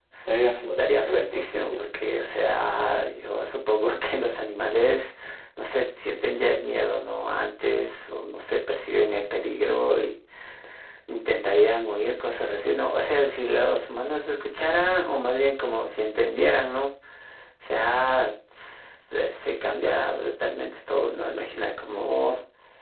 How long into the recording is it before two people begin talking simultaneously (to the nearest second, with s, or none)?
1 s